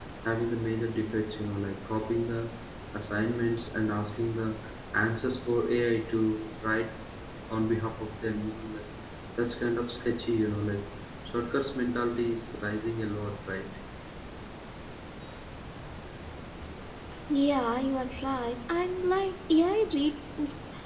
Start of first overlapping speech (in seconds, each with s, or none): none